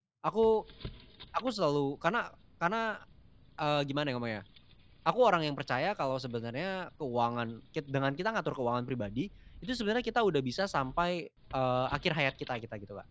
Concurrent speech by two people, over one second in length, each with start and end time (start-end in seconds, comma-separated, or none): none